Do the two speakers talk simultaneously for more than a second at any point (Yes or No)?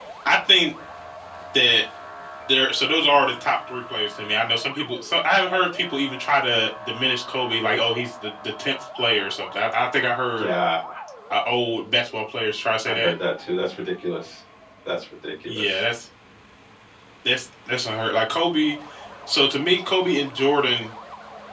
No